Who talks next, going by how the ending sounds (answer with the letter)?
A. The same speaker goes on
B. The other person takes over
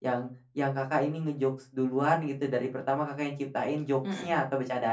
A